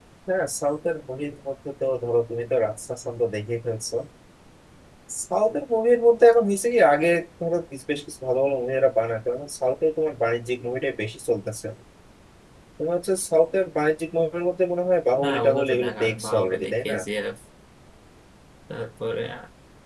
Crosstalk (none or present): present